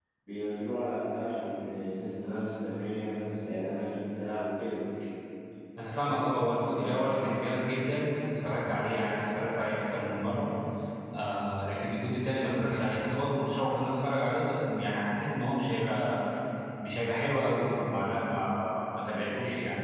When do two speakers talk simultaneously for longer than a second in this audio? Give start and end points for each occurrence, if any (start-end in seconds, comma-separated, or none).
none